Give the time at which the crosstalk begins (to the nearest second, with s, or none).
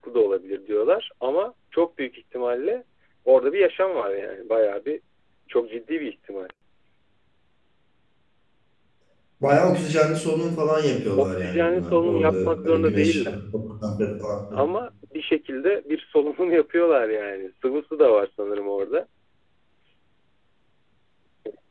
11 s